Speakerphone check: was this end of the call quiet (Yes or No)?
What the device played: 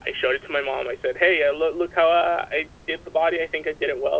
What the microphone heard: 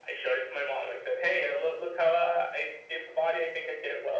Yes